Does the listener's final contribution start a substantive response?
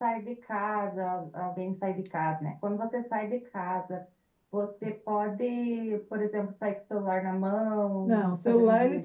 Yes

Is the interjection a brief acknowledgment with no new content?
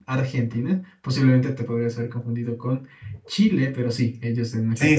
No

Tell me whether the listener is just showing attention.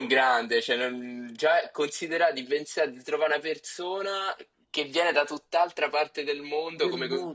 No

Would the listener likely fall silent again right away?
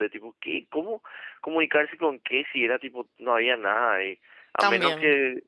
Yes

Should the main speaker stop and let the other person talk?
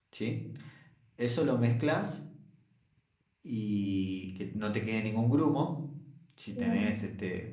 No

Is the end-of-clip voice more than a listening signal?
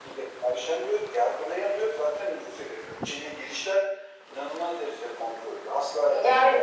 Yes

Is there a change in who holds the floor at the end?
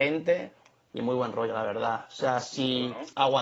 No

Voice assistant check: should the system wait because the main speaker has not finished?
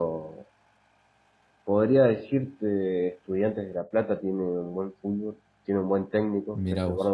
Yes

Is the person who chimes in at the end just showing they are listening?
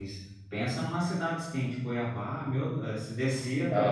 No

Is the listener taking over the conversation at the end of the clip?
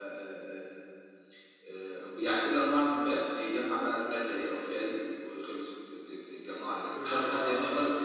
Yes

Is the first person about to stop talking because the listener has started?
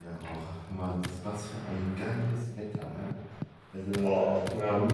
No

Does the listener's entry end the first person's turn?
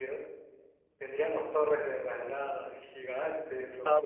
Yes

